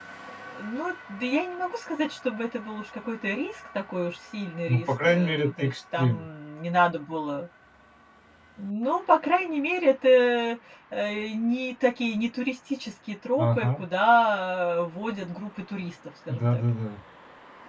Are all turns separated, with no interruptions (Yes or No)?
No